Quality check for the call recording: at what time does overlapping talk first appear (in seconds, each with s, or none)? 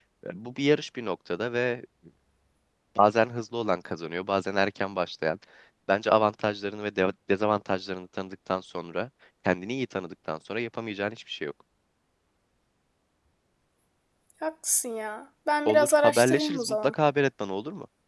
15.7 s